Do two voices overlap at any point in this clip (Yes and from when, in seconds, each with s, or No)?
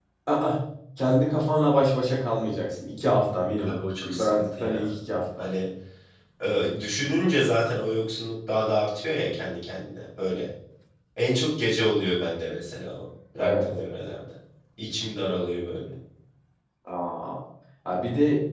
Yes, from 3.6 s